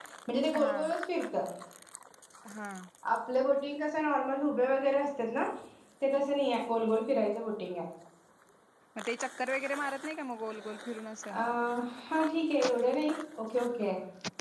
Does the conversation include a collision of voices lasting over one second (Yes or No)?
No